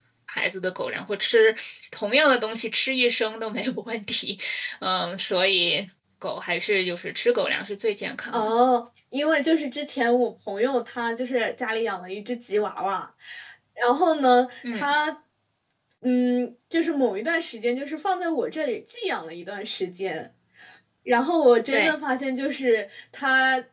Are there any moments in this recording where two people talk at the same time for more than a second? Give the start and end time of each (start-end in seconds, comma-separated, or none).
none